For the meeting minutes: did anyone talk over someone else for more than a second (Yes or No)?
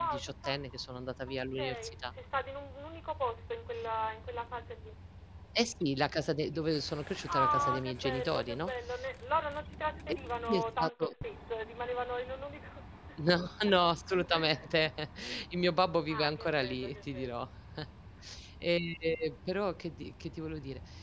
Yes